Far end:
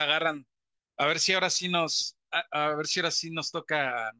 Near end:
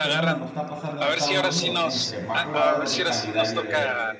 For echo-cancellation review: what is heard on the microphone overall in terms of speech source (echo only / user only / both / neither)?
both